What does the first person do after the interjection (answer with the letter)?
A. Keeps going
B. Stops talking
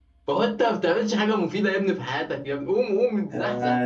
A